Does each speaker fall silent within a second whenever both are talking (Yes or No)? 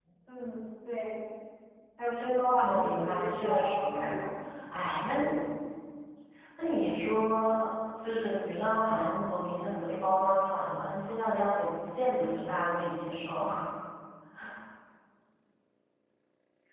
No